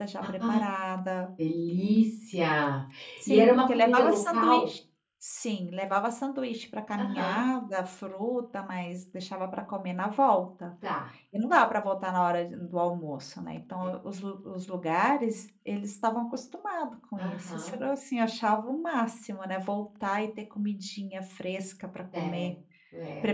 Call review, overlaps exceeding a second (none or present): present